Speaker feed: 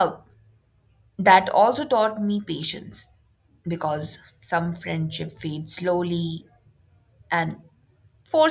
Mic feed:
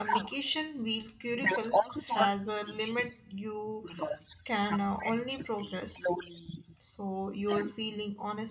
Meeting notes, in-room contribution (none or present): present